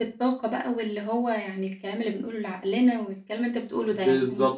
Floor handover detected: Yes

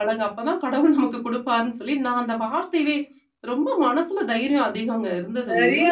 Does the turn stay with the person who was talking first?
No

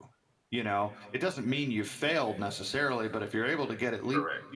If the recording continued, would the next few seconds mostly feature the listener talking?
No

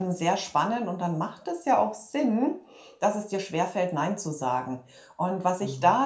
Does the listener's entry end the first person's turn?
No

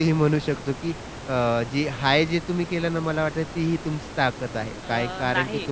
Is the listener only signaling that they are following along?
Yes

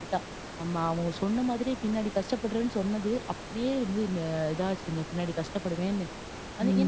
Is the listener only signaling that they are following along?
No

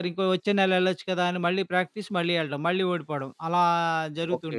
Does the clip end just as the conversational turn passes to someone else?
Yes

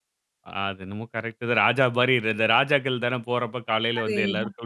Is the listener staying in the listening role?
No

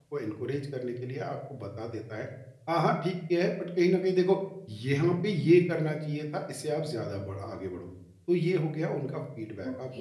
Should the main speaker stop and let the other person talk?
No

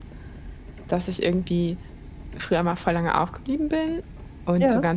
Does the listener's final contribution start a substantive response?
No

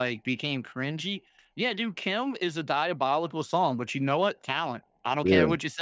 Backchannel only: Yes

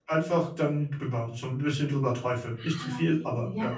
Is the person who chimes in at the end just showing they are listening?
No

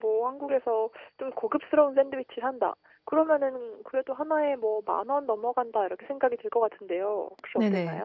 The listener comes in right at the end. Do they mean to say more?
Yes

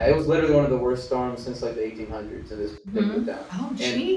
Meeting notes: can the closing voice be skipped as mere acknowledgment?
No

